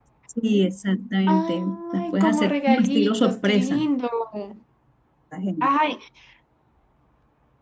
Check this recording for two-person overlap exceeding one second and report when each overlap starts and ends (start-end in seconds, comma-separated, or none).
1.3-3.8